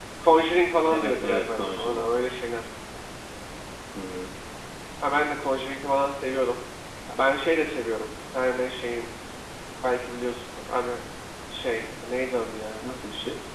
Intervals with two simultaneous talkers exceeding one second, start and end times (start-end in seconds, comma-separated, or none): 0.9-2.1